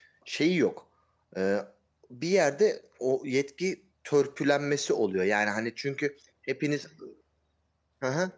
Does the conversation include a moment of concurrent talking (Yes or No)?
No